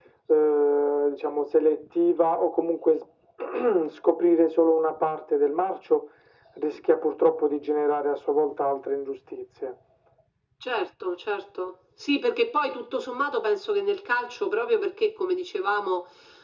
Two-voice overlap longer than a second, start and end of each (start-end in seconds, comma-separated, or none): none